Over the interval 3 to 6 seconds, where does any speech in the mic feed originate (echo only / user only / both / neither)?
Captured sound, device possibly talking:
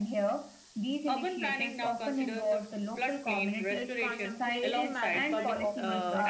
both